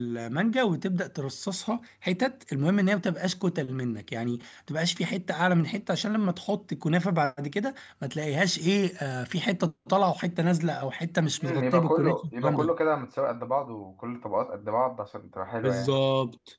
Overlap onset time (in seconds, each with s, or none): 11.5 s